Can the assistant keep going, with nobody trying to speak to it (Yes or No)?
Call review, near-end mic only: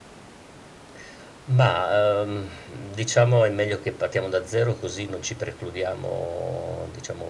Yes